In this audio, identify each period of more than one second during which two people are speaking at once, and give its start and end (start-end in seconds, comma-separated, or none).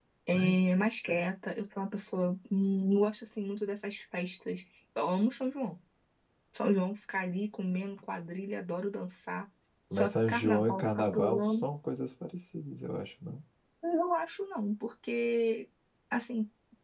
9.9-11.6